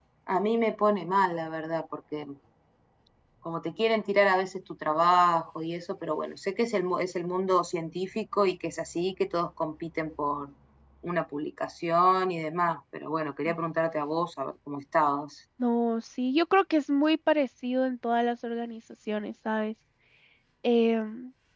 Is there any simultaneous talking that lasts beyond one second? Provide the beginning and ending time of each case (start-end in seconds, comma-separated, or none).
none